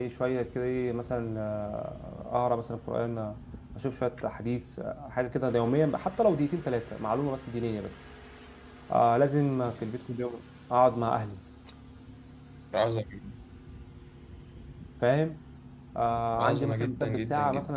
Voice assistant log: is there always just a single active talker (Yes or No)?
No